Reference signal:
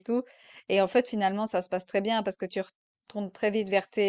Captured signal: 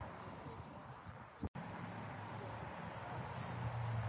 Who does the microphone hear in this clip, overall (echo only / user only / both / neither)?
neither